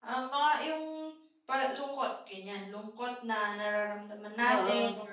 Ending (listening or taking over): listening